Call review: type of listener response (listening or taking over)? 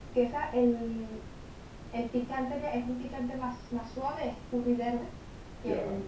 listening